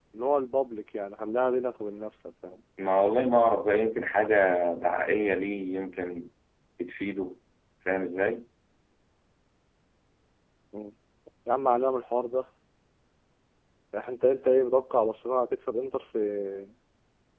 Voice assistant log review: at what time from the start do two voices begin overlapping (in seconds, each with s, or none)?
none